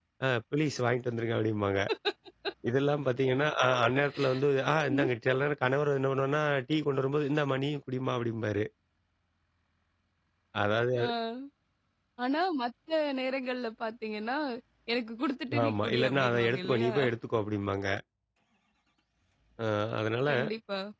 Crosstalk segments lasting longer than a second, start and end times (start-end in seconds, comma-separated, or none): 15.6-16.9